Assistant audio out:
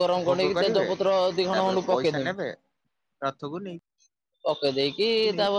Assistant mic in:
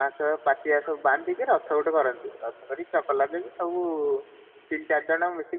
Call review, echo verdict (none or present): none